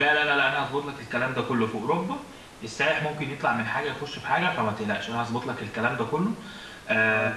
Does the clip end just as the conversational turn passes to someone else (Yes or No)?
No